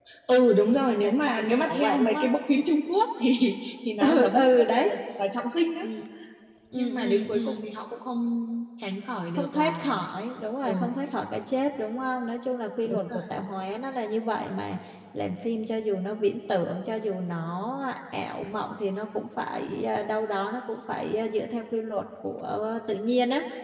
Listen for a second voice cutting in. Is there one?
Yes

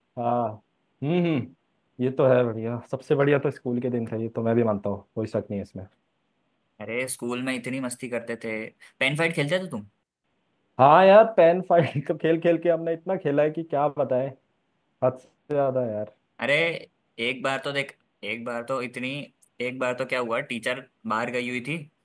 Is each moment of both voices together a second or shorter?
Yes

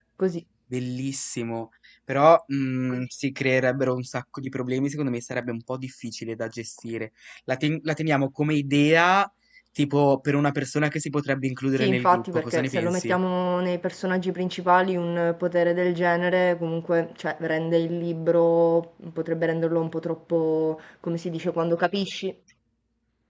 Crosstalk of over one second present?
Yes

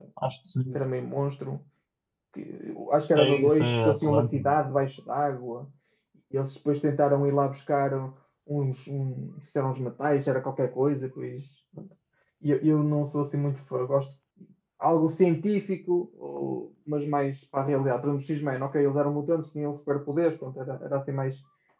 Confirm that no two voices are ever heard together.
No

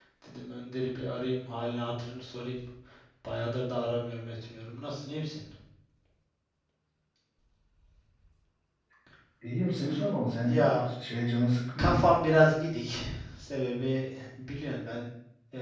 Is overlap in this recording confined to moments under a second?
Yes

